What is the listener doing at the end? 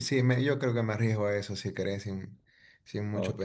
taking over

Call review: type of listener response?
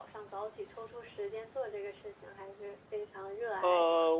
taking over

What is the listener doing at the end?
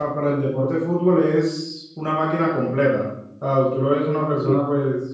listening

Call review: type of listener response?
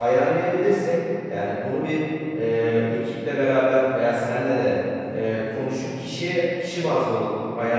listening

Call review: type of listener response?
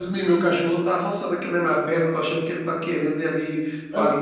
listening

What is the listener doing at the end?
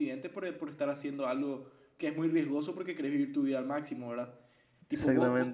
listening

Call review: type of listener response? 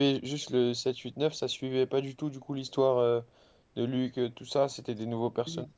taking over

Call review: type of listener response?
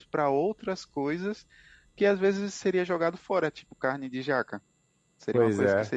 listening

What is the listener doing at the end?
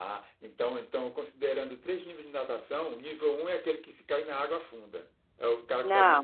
listening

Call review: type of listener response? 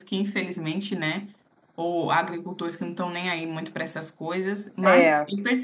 listening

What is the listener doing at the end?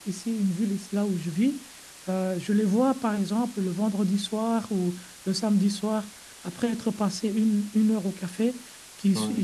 listening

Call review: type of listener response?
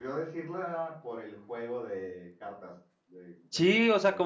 taking over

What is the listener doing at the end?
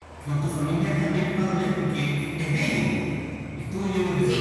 listening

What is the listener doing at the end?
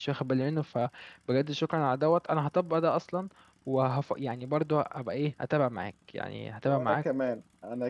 taking over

